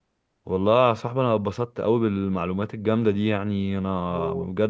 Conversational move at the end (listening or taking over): listening